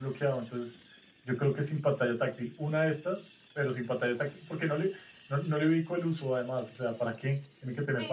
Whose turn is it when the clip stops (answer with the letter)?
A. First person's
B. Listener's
B